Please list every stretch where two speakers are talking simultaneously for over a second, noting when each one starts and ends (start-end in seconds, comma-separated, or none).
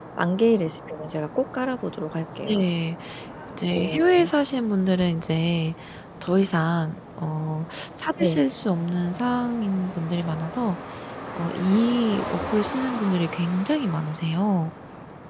none